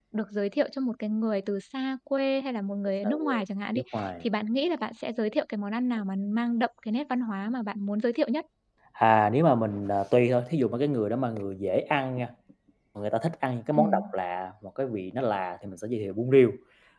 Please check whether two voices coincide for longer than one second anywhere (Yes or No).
No